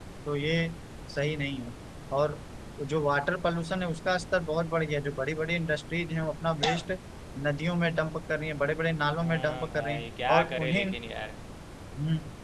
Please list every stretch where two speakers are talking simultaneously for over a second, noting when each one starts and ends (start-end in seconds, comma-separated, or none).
9.2-10.8